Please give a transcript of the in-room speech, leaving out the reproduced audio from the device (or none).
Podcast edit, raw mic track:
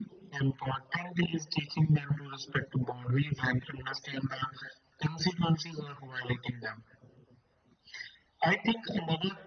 none